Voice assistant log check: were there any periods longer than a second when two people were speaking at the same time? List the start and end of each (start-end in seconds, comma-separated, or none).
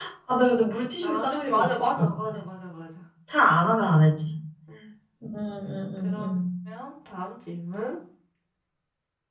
0.8-2.2